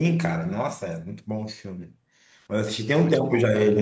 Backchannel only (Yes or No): Yes